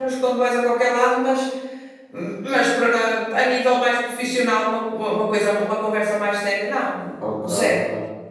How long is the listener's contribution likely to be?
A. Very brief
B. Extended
B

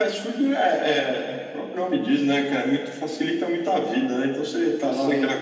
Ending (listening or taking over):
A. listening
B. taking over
A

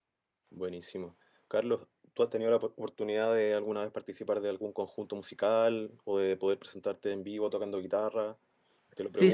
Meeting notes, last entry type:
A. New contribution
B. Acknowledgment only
A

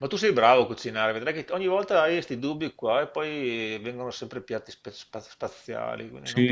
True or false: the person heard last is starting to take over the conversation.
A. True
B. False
A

